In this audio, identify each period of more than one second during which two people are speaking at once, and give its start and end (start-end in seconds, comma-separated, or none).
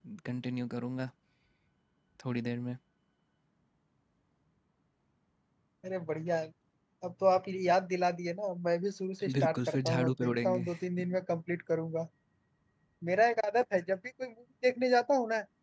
9.3-10.6